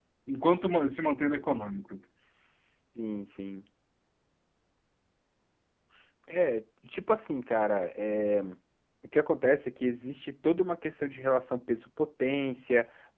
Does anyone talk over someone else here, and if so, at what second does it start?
none

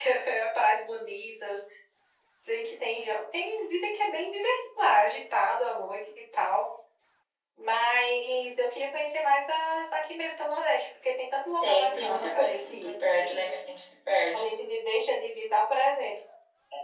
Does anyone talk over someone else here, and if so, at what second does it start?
11.6 s

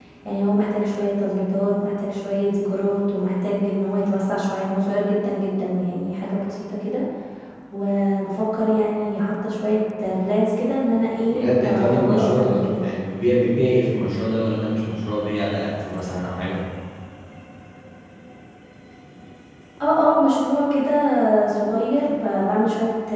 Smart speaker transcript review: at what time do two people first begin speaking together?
11.3 s

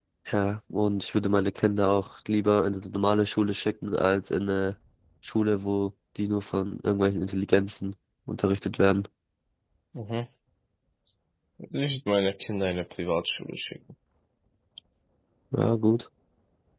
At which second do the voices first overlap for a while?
none

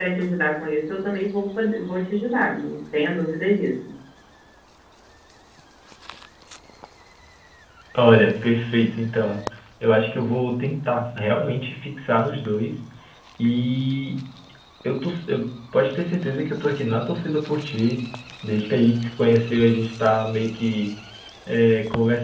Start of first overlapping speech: none

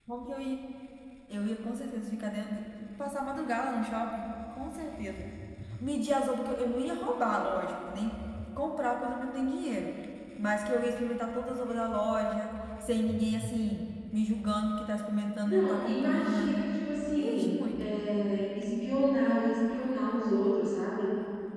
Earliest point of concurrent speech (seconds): 15.4 s

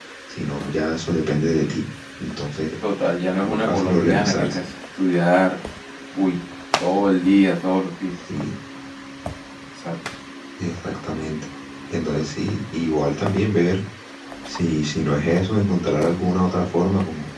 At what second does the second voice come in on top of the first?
3.4 s

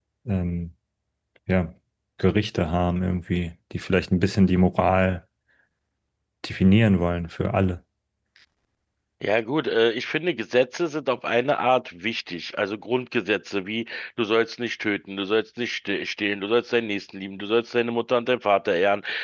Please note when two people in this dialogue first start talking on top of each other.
none

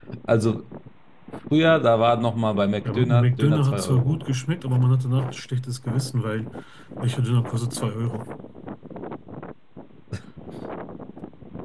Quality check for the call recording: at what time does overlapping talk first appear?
2.8 s

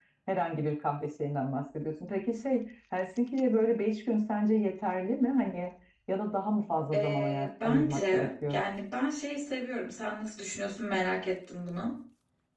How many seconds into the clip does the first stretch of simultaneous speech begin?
6.9 s

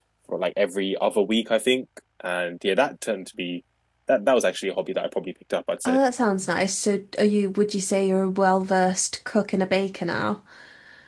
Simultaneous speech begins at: none

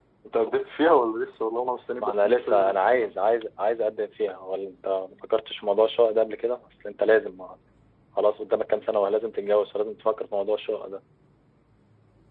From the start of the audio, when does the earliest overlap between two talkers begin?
2.0 s

